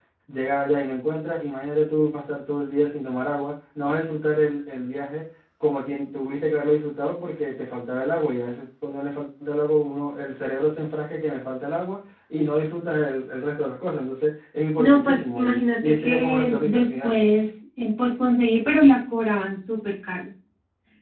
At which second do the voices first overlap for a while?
14.8 s

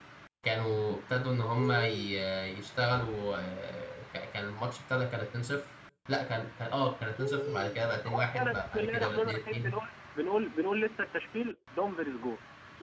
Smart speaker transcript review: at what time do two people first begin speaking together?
8.0 s

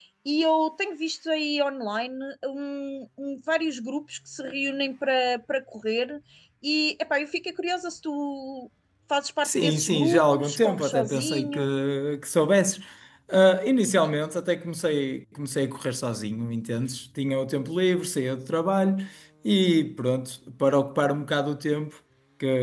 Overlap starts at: 9.4 s

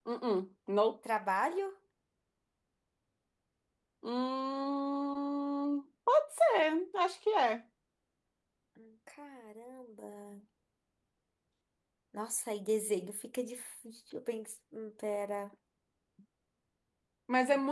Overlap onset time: none

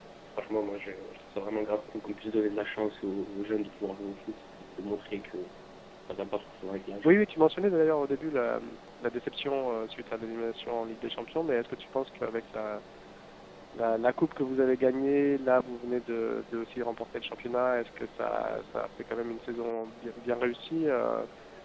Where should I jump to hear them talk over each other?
none

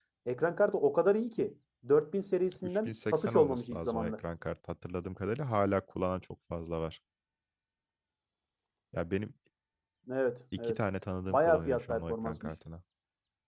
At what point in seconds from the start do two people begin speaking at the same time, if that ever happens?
2.6 s

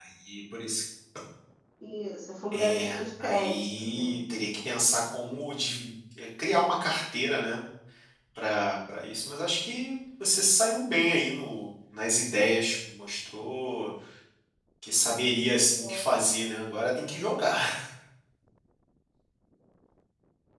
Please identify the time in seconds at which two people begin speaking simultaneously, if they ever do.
2.5 s

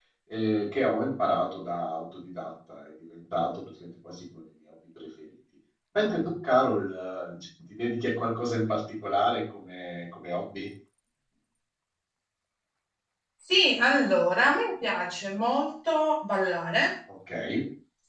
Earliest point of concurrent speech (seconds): none

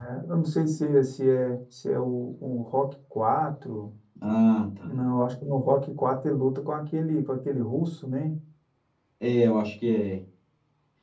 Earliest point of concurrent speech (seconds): none

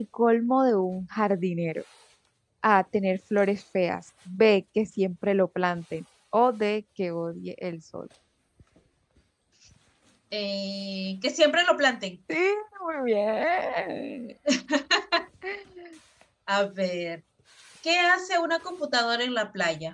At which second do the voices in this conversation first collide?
none

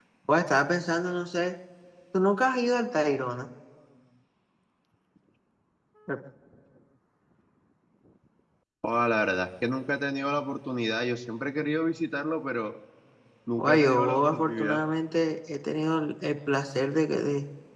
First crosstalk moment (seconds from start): 13.6 s

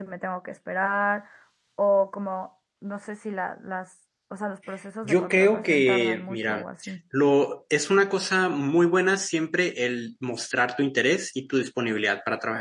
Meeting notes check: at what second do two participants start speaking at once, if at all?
5.0 s

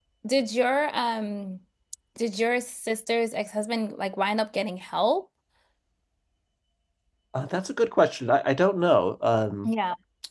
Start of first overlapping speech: none

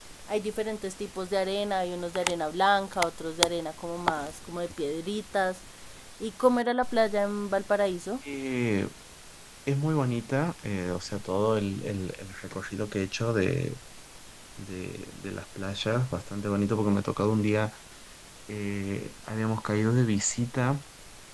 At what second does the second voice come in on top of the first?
none

